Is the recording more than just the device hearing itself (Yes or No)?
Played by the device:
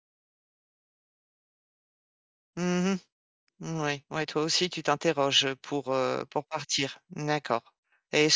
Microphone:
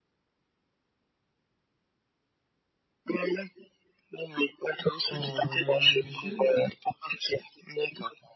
Yes